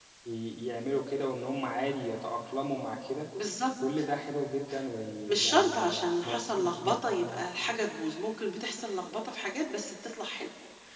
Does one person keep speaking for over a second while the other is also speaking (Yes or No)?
Yes